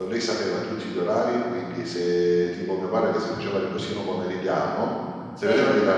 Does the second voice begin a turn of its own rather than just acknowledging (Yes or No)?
No